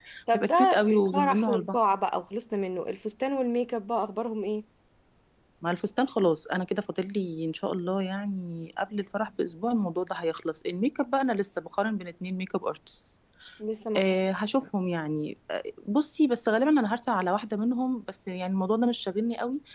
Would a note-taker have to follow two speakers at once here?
Yes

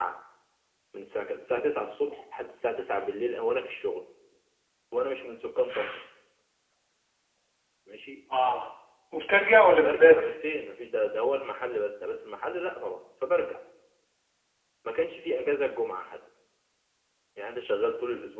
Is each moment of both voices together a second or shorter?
Yes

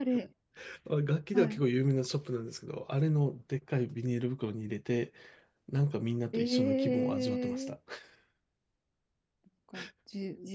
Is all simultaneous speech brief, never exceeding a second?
No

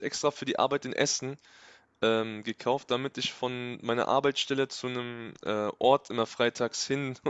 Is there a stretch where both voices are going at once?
No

